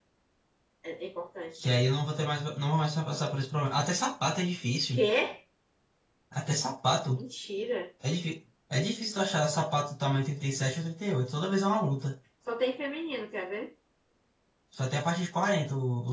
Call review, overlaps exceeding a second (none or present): none